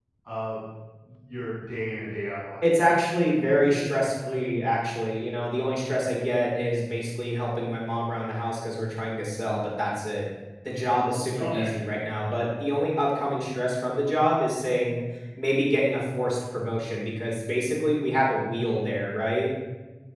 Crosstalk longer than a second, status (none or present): none